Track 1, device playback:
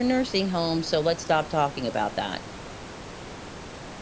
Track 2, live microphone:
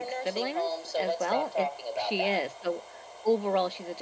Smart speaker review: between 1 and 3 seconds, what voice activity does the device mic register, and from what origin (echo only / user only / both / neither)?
both